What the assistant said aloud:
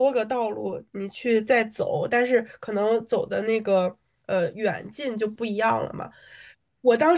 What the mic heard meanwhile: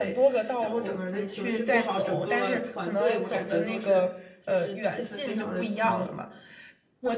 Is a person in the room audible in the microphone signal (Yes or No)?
Yes